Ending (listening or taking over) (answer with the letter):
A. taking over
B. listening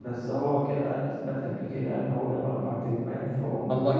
A